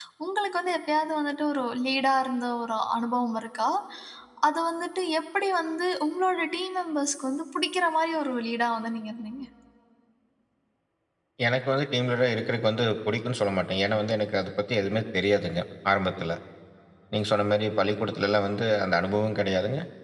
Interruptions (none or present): none